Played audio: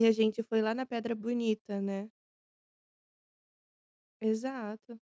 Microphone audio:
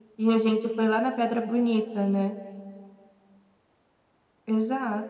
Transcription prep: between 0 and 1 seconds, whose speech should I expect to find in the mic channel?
echo only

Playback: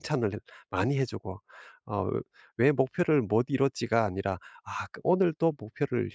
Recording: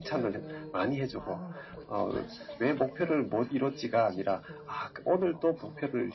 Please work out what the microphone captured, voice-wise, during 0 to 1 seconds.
both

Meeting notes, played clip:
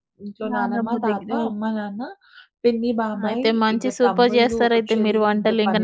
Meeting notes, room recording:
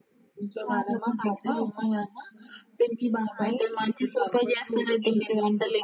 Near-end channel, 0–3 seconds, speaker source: echo only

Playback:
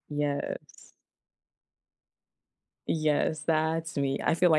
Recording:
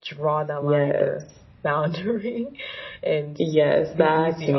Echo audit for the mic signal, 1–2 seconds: both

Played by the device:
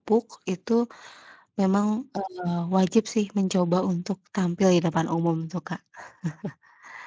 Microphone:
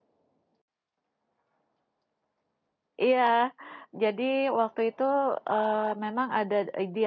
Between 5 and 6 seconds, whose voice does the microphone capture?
user only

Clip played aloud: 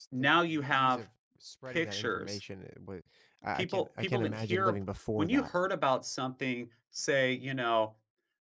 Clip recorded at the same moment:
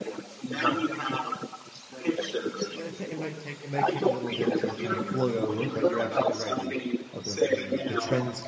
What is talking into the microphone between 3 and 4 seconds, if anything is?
both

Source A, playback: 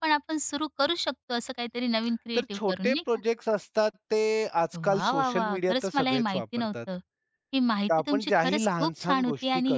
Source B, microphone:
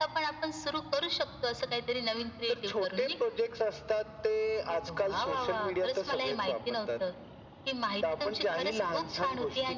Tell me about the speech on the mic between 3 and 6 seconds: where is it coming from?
echo only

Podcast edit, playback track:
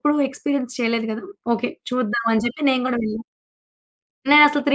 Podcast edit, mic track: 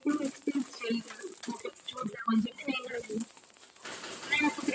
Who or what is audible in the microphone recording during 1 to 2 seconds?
echo only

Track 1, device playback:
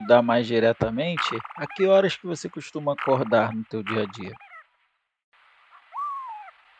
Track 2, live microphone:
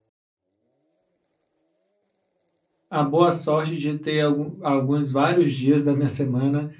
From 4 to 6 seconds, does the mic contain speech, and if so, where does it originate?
user only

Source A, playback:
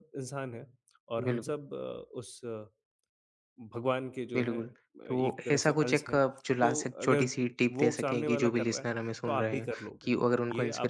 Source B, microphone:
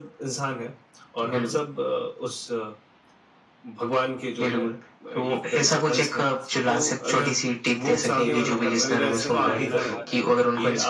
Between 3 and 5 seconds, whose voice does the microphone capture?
echo only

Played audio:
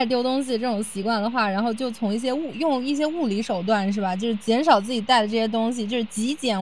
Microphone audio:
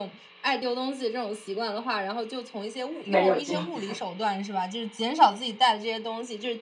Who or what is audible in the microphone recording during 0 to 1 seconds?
echo only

